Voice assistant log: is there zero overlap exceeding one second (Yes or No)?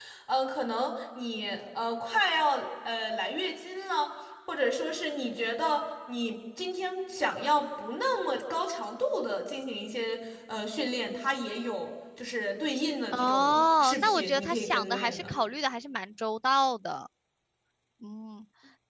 No